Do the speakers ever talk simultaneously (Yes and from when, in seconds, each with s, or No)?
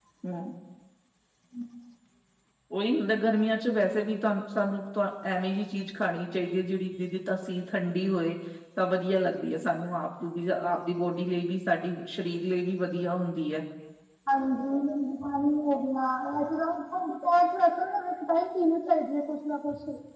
No